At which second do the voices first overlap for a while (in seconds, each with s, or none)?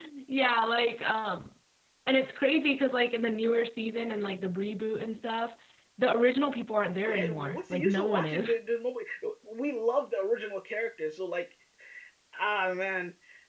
7.1 s